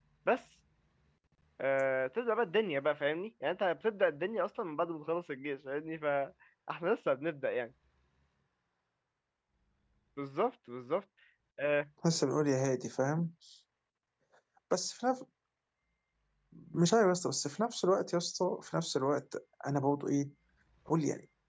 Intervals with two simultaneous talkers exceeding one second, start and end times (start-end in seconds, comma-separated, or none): none